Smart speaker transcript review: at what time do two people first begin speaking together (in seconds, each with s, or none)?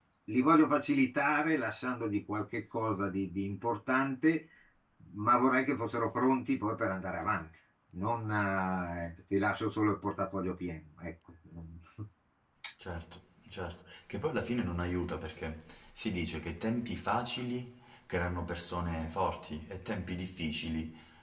none